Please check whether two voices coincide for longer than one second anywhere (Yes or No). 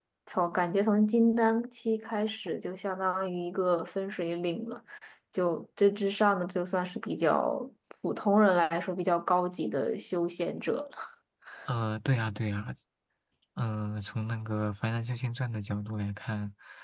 No